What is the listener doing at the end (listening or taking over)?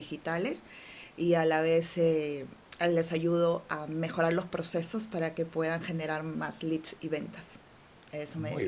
taking over